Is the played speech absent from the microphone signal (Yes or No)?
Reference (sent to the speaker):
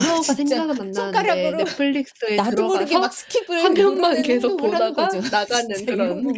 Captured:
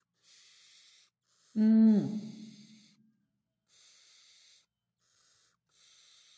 Yes